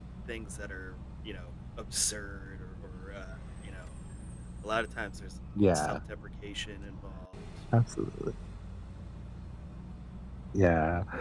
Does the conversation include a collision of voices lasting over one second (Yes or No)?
No